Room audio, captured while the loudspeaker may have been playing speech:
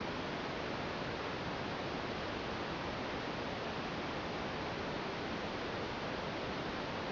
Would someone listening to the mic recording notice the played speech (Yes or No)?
No